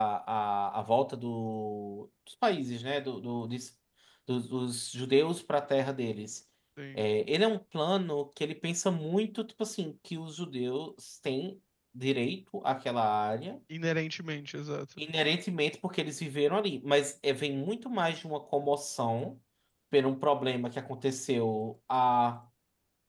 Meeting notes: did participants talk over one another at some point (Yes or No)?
No